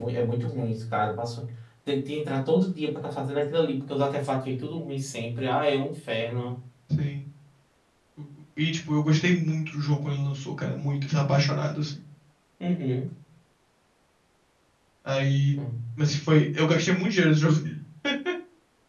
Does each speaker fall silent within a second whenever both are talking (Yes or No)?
Yes